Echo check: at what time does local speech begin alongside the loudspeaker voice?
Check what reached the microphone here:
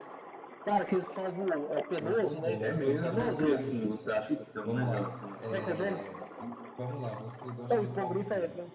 2.0 s

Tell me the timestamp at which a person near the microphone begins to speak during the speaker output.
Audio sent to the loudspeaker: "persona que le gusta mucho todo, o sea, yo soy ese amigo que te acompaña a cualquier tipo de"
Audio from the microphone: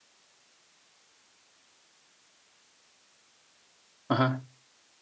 4.1 s

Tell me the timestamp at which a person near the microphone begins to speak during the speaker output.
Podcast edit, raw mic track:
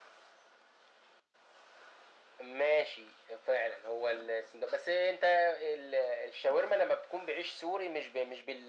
none

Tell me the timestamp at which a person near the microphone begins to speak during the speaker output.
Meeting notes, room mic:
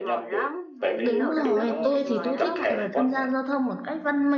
1.0 s

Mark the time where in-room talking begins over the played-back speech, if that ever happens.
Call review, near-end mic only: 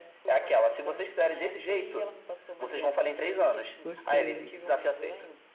3.8 s

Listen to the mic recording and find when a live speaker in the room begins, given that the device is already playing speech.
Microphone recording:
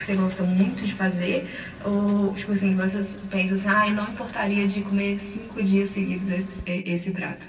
none

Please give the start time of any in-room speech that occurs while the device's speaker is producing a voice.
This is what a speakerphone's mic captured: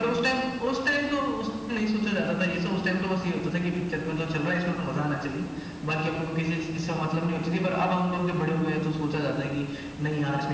none

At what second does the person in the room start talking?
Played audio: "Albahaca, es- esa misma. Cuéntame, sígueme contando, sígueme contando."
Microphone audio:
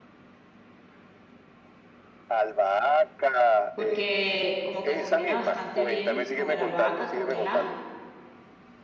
3.7 s

